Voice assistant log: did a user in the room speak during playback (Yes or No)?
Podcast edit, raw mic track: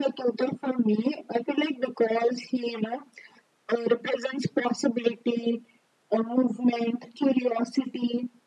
No